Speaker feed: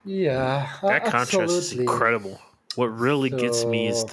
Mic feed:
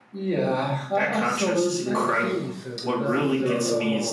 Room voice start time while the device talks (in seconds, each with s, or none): 1.8 s